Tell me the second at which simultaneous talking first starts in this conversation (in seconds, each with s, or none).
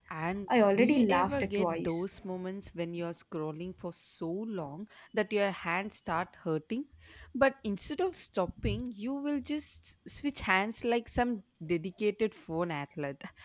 0.8 s